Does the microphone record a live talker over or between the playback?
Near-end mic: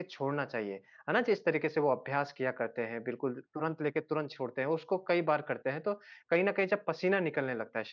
Yes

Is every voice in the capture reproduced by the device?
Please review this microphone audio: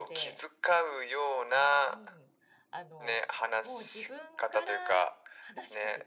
No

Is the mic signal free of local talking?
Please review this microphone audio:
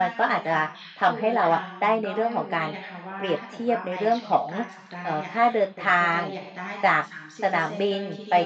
No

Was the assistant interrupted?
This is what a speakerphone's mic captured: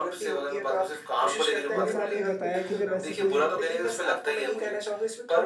Yes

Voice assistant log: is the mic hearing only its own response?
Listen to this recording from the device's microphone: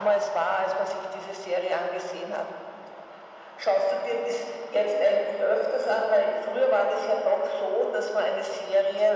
Yes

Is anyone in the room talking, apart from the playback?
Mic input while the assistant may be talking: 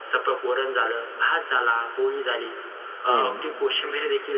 Yes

